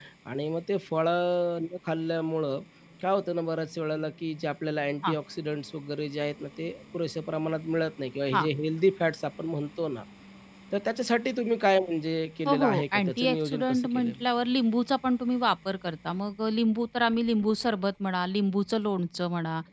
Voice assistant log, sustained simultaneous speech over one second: present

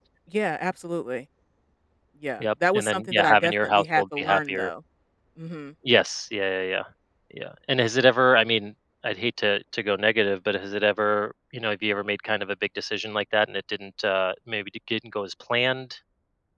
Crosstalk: present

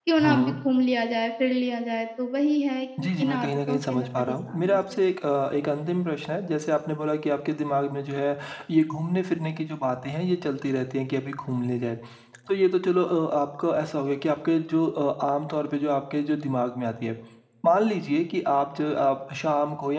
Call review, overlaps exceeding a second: present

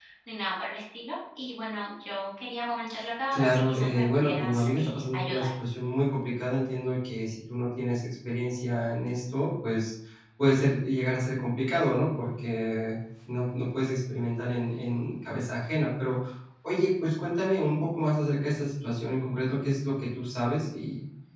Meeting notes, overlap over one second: present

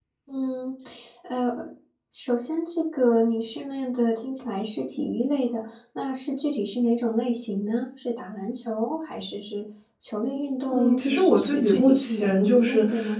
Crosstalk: present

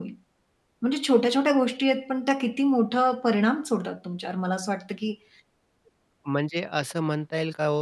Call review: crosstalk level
none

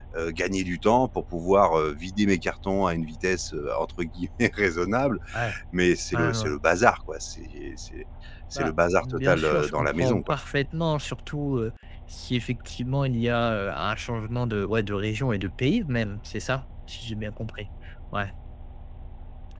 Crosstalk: present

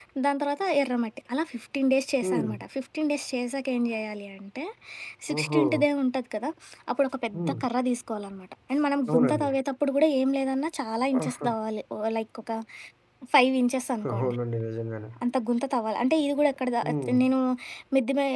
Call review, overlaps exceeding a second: none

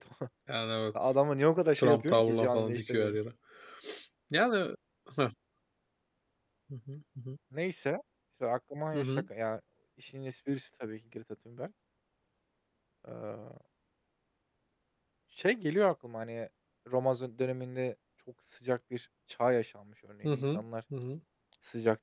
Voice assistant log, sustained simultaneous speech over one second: present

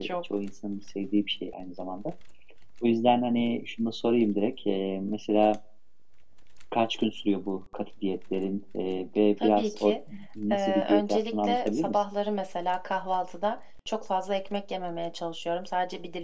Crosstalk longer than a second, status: present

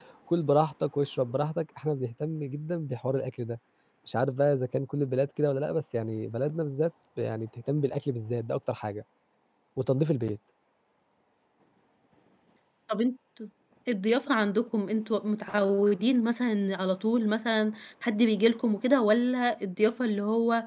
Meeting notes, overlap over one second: none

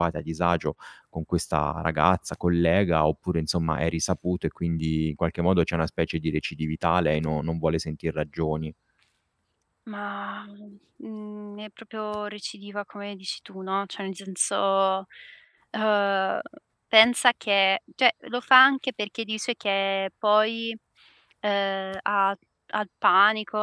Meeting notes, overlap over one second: none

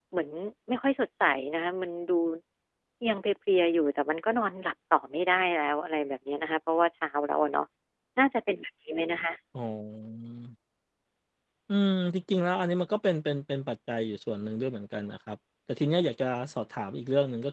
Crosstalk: none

